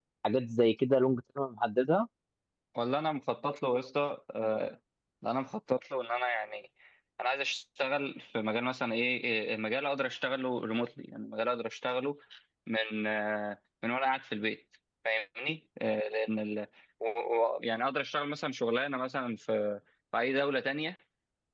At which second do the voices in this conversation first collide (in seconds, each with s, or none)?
none